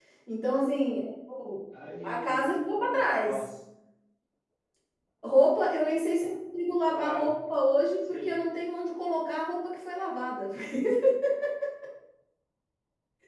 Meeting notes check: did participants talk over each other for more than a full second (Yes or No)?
Yes